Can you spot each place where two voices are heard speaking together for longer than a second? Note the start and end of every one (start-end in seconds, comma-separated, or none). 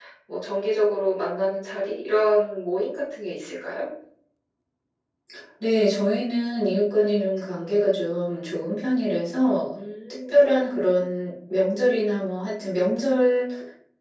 none